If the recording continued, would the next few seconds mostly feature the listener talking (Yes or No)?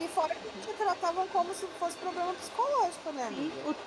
Yes